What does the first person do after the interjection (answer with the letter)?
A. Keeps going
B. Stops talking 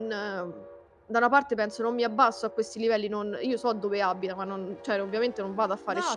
A